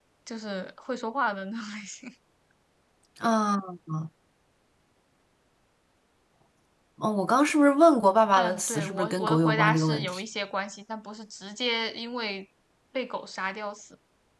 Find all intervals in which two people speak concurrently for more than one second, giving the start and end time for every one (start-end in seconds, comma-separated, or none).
8.3-10.2